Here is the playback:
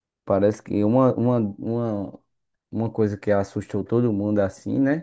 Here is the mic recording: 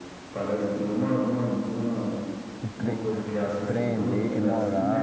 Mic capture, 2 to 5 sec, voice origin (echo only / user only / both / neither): both